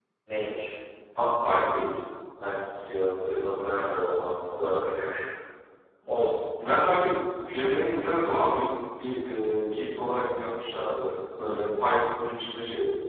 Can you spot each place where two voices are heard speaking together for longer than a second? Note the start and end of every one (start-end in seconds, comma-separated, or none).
none